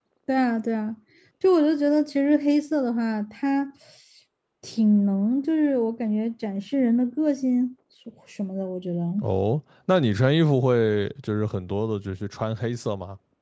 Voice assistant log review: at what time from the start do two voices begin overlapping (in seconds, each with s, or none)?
none